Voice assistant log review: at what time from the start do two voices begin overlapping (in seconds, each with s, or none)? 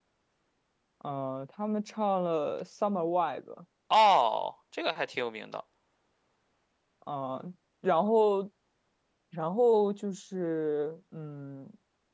none